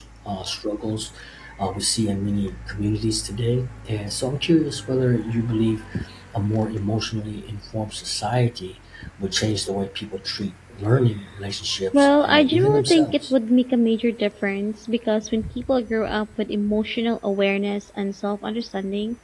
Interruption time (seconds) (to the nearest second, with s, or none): 12 s